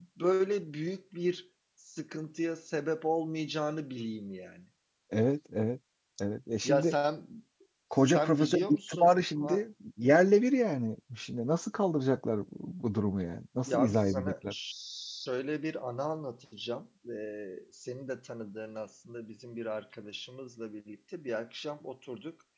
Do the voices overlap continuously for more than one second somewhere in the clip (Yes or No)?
Yes